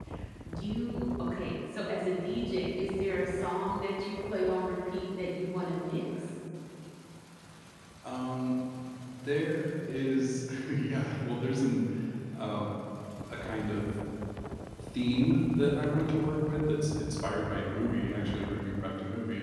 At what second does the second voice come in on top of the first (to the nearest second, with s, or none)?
none